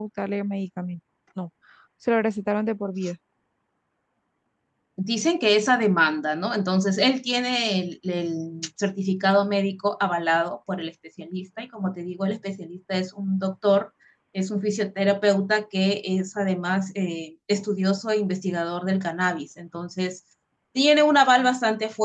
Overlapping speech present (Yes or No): No